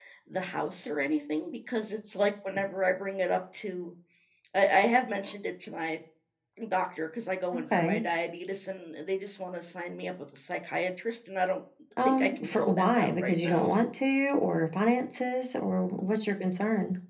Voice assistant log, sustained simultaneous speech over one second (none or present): present